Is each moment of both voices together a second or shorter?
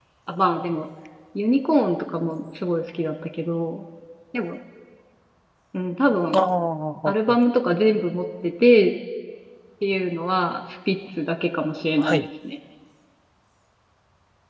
Yes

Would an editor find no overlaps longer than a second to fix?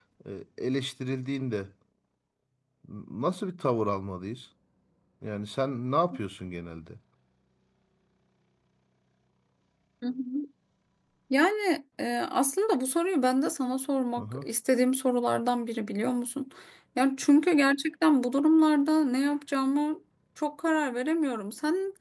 Yes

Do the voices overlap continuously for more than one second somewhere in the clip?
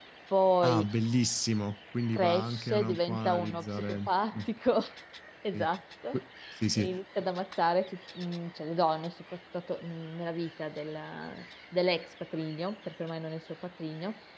Yes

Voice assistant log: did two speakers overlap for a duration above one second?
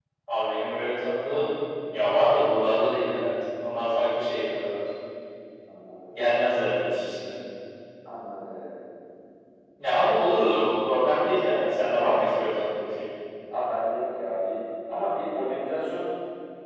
No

